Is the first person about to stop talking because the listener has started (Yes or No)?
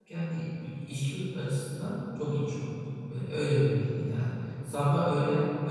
No